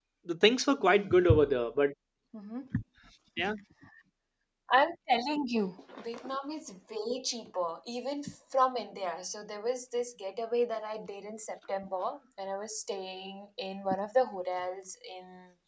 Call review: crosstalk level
none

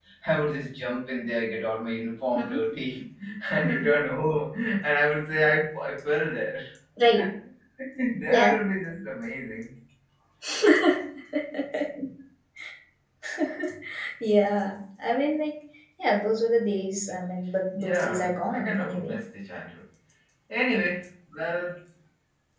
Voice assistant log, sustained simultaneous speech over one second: present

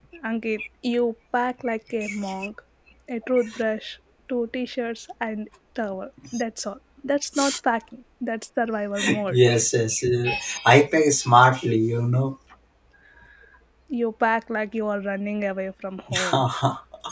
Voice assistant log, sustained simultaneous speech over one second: none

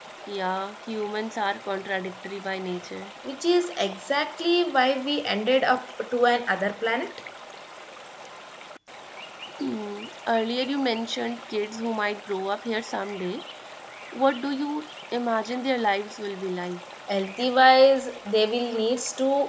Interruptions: none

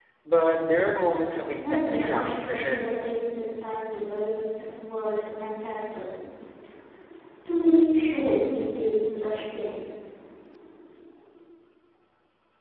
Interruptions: present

